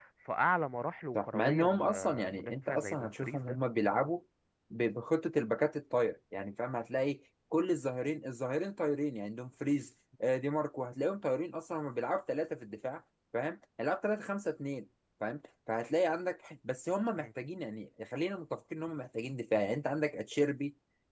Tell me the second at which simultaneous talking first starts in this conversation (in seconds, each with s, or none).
1.1 s